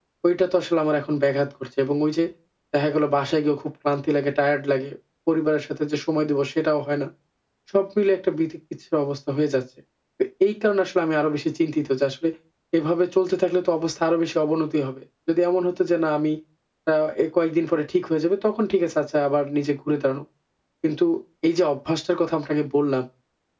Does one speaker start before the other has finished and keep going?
No

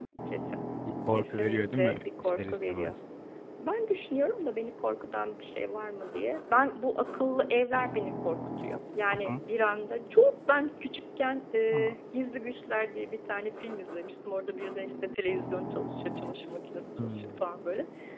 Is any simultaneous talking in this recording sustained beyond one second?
Yes, from 1.1 s

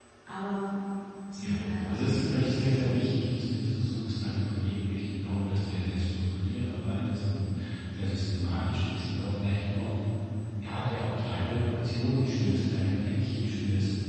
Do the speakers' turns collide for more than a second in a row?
Yes, from 1.4 s

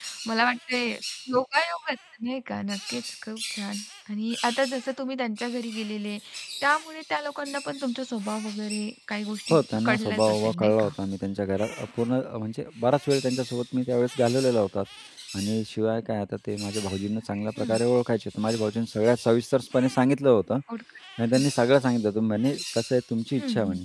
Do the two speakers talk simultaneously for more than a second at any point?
Yes, from 9.5 s

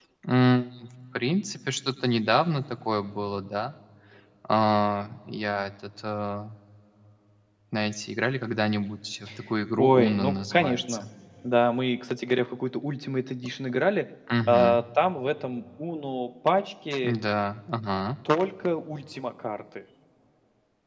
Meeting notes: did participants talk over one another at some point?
Yes, from 9.8 s

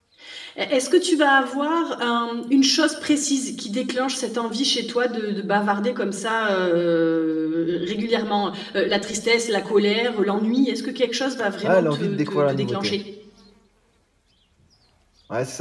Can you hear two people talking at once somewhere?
Yes, from 11.6 s

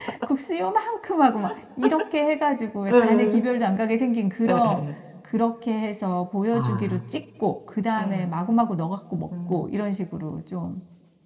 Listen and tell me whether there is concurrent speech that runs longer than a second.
No

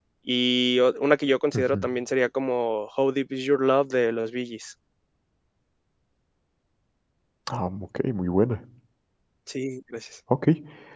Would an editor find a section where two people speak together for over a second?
No

